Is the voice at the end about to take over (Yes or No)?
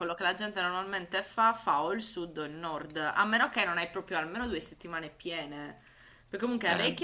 No